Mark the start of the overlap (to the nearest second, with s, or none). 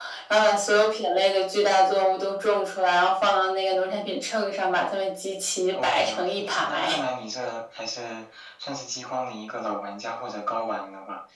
6 s